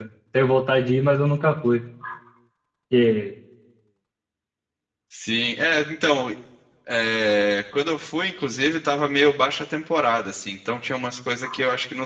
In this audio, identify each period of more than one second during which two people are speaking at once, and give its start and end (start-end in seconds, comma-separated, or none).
none